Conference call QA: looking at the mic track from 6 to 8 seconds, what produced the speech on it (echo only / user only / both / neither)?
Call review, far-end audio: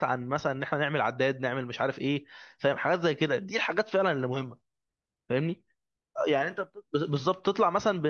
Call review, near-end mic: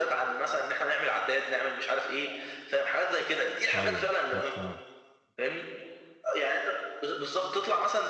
echo only